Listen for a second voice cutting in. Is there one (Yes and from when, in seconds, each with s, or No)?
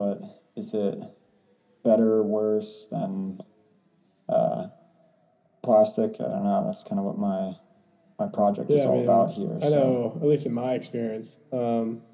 Yes, from 8.7 s